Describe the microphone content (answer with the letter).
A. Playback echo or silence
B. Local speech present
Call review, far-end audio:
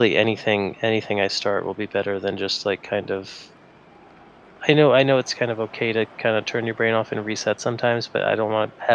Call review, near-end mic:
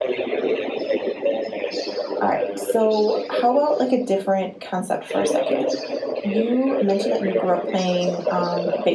B